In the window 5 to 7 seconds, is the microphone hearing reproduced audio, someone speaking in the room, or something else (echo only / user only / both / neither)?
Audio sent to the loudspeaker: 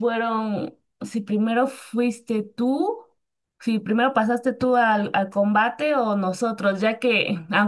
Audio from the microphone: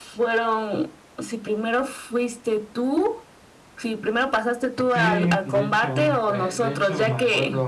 both